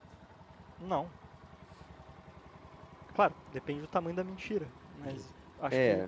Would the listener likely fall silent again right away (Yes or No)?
No